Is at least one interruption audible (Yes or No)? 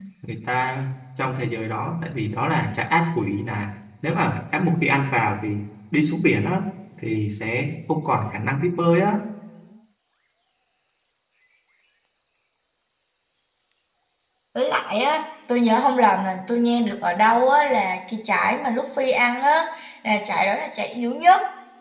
No